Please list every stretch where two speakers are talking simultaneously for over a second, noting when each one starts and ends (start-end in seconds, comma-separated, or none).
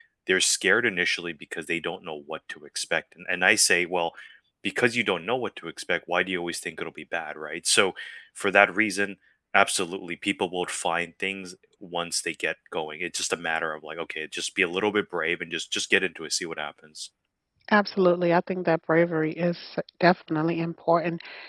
none